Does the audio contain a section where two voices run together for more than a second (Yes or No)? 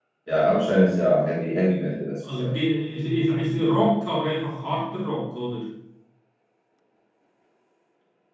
No